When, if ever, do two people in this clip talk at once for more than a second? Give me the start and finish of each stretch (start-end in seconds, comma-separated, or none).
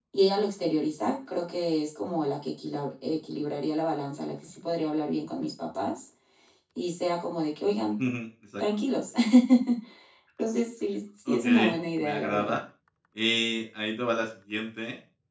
11.3-12.6